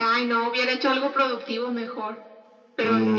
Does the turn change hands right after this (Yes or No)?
Yes